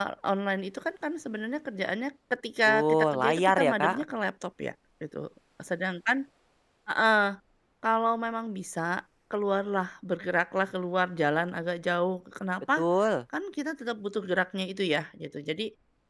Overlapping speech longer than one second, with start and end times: 2.6-4.0

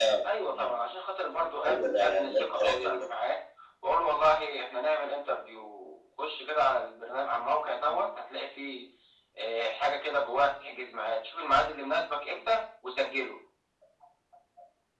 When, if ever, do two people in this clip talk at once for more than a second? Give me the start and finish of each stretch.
1.6-3.0

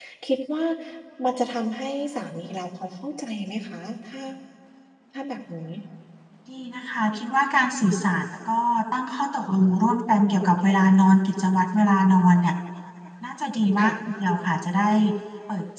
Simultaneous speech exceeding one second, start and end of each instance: none

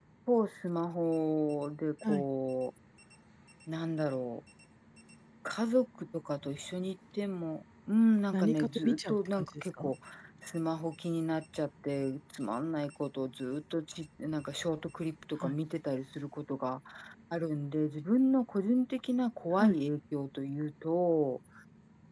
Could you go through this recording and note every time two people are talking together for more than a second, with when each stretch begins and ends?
8.3-9.9

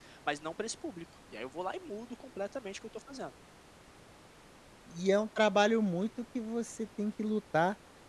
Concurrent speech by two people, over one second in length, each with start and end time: none

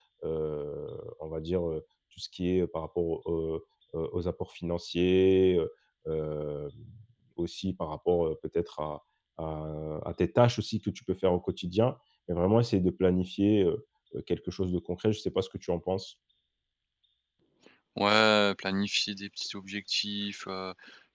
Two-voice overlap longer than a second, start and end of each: none

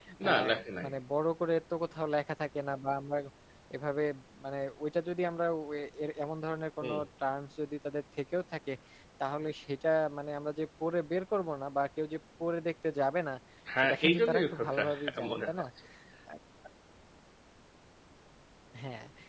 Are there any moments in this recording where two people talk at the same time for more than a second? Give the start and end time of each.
13.8-15.6

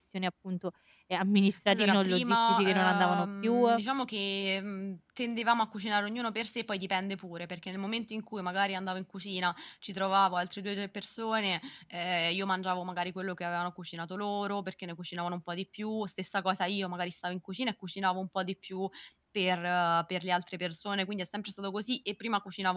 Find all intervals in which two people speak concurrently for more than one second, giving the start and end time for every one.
1.7-3.8

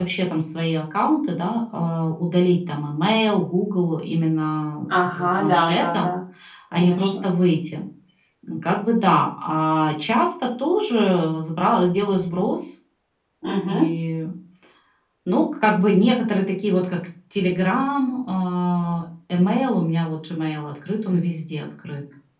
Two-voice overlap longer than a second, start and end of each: 4.9-6.1

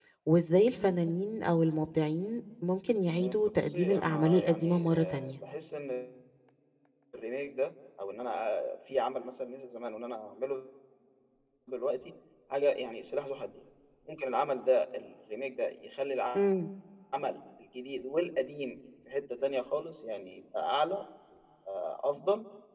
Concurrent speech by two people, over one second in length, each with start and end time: 3.2-5.3

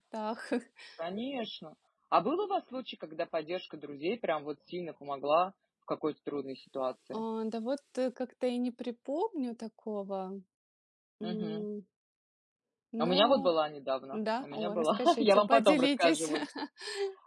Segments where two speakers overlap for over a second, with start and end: 14.1-16.3

